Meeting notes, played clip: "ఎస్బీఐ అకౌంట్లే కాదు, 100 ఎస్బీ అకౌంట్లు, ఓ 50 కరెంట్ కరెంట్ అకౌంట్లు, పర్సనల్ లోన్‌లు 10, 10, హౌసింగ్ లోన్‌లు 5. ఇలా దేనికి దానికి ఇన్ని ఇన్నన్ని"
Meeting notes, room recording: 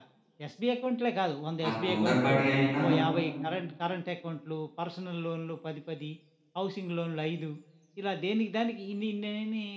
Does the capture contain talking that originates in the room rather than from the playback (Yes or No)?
Yes